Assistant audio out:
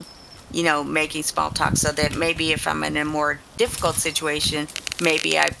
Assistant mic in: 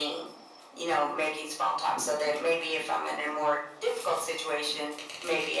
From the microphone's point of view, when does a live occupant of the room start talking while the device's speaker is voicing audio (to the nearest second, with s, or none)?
none